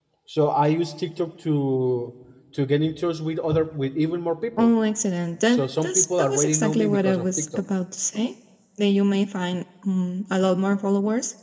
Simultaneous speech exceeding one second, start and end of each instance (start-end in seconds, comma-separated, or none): 5.5-7.6